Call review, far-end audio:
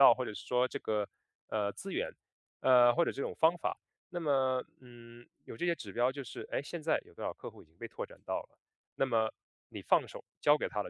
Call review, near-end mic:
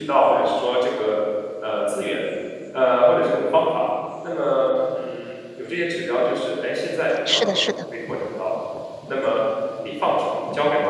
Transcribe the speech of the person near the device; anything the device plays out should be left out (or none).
是的，是的，